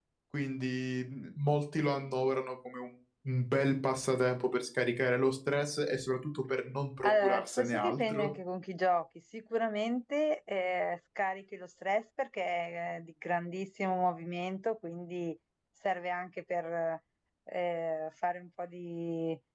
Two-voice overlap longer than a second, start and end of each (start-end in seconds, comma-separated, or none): 7.0-8.3